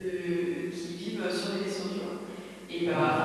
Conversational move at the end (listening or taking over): listening